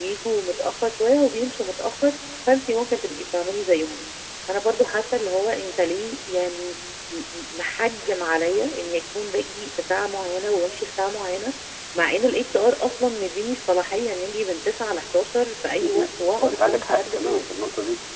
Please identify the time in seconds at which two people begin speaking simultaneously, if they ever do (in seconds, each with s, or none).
15.8 s